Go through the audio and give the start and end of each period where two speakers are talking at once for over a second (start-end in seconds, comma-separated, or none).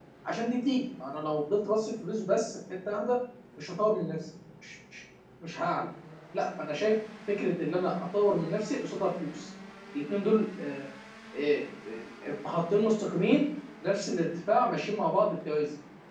none